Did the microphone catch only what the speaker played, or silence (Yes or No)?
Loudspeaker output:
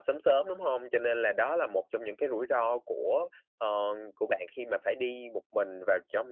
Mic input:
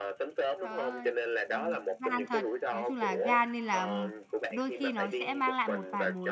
No